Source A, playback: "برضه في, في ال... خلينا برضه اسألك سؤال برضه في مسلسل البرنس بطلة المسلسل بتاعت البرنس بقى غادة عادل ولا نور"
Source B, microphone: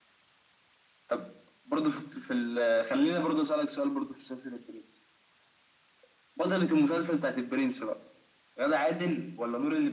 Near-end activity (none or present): none